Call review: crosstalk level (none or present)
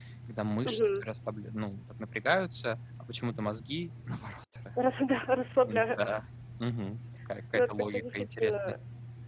present